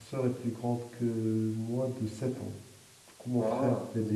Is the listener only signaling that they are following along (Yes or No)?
Yes